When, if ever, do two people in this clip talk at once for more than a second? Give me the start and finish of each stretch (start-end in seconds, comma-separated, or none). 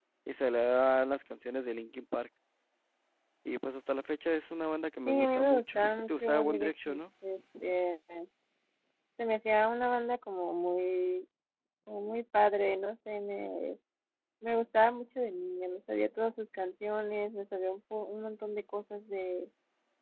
5.0-7.0